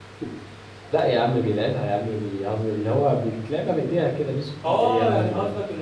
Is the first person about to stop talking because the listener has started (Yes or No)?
Yes